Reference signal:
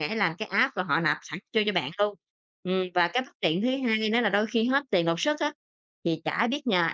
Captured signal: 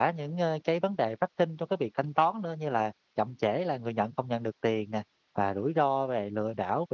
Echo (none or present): none